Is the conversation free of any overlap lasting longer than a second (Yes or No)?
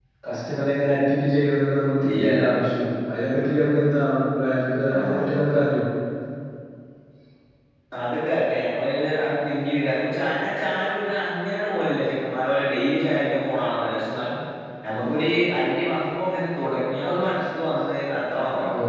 Yes